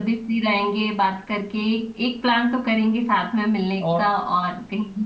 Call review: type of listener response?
listening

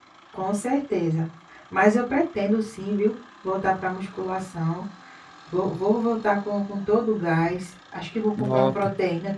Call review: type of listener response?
listening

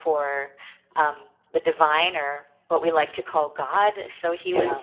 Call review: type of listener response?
listening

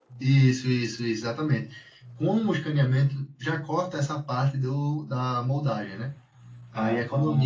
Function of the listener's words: listening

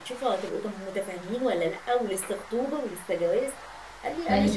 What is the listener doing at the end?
listening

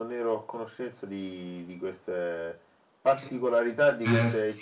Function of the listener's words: taking over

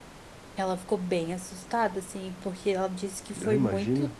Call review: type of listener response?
listening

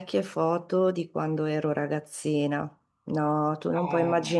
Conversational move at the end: listening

